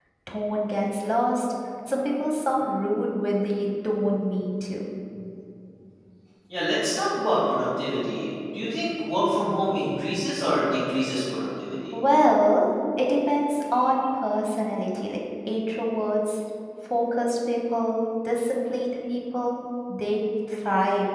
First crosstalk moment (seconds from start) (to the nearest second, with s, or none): none